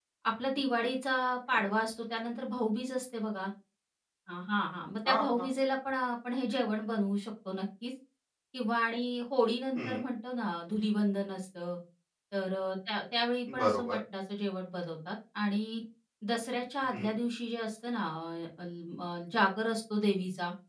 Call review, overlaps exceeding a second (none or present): none